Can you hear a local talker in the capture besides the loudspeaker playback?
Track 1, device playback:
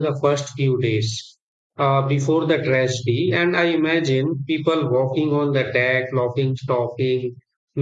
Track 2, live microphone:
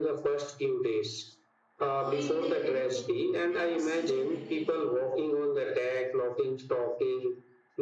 Yes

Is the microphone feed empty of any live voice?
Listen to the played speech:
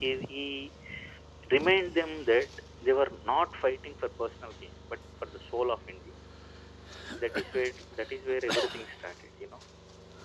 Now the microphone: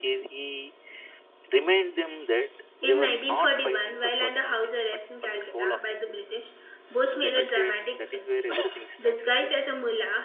No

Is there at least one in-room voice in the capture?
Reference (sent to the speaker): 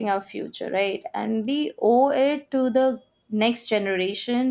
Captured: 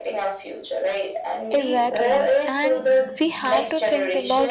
Yes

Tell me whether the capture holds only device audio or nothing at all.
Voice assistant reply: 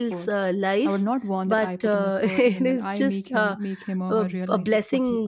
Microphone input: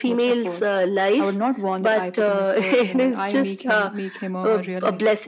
Yes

